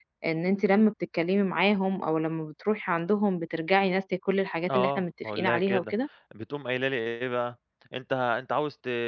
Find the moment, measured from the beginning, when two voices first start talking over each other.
4.7 s

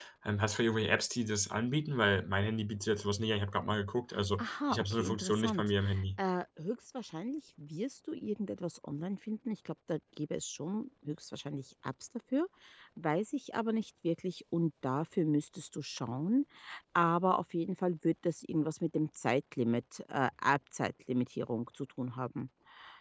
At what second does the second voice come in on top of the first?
4.4 s

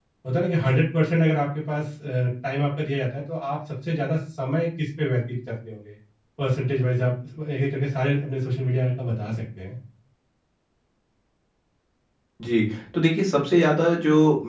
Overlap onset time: none

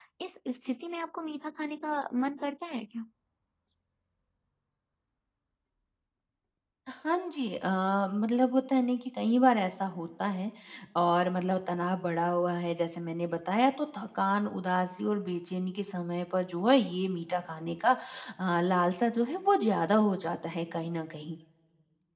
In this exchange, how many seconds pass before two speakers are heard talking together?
none

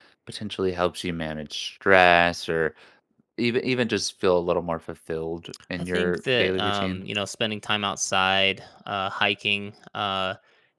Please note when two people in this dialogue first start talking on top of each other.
5.5 s

